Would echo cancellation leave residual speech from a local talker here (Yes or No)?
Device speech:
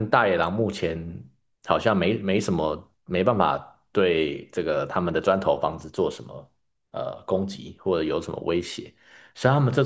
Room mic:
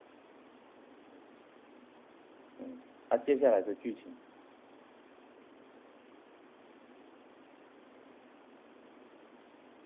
Yes